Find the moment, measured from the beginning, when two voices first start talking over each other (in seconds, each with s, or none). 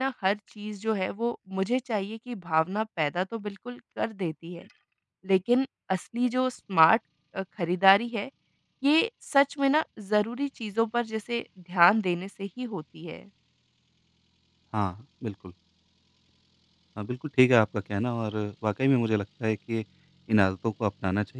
none